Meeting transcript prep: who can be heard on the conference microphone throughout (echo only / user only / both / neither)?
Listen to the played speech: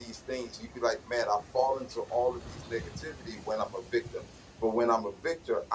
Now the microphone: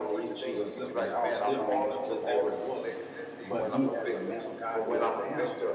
both